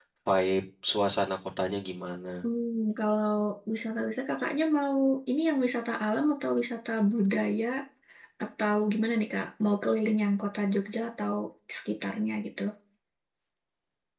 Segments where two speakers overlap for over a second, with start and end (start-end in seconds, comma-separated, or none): none